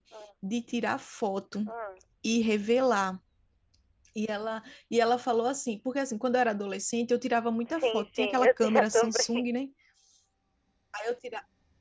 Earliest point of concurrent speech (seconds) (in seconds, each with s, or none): 7.8 s